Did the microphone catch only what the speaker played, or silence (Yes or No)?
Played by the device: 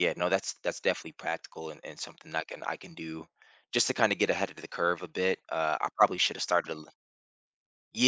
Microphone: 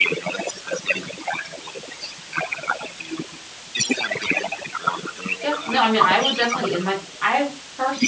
No